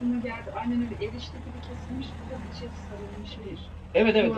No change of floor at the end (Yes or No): No